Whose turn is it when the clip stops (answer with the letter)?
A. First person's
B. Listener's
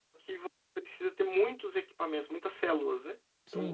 B